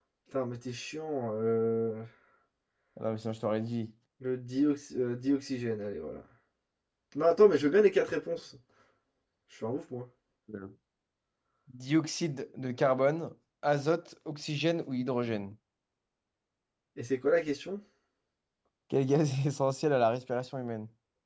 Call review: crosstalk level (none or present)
none